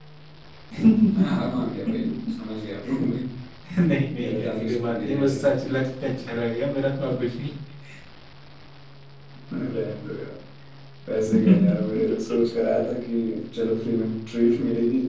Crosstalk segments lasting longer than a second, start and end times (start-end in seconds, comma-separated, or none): 4.2-5.4